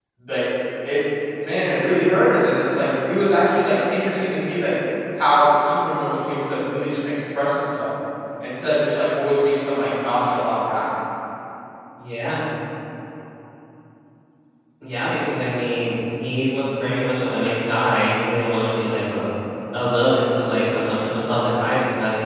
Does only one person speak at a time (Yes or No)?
Yes